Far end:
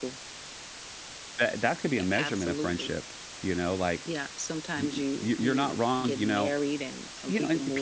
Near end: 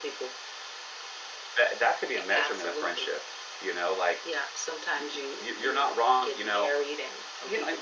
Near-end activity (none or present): none